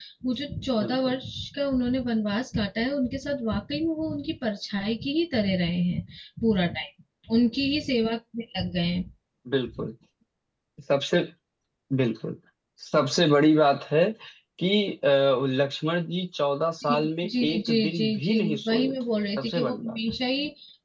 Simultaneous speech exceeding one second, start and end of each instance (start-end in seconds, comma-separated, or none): 16.8-20.0